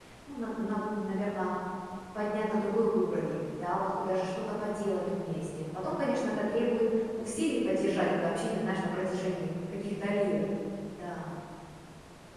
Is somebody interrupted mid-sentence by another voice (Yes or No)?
No